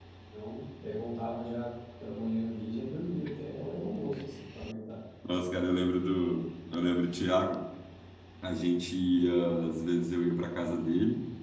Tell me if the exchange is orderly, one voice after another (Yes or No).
Yes